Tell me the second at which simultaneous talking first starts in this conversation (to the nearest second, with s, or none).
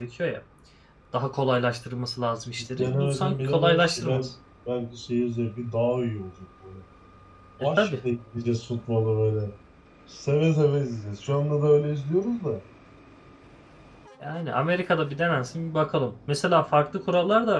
3 s